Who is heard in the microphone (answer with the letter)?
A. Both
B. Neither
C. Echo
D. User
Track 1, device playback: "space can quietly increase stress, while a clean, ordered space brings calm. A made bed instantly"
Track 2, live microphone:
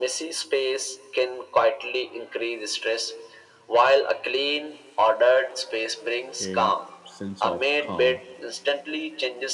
A